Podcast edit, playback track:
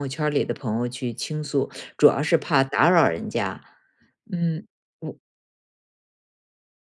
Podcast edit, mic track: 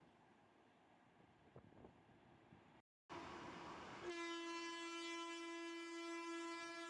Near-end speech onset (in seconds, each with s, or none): none